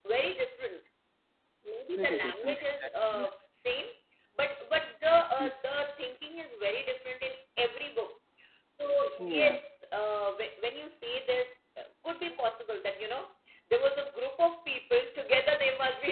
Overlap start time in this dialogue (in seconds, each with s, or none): 2.0 s